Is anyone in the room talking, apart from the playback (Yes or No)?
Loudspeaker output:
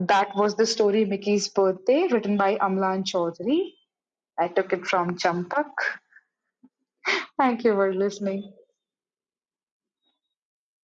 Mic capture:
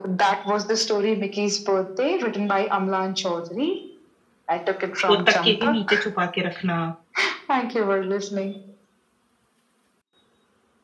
Yes